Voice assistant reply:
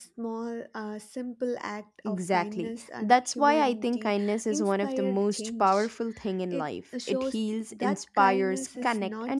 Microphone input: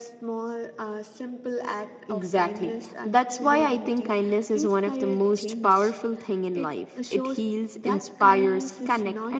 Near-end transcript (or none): none